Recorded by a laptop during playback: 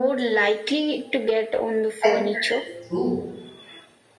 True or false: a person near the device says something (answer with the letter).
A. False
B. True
B